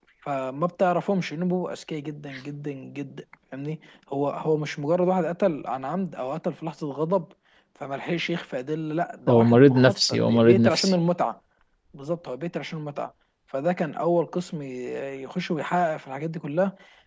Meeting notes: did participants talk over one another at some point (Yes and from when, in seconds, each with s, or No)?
Yes, from 9.3 s